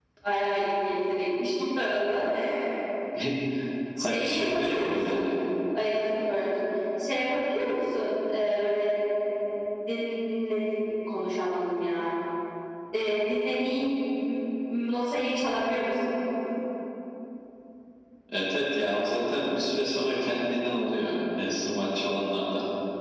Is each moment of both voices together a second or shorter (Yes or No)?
No